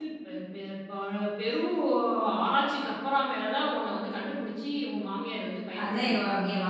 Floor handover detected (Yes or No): Yes